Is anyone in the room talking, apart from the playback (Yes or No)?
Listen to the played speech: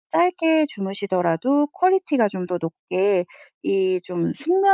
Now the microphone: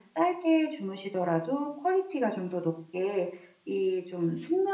No